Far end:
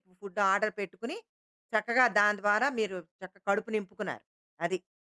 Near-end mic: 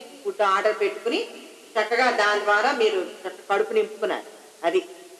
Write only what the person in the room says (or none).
none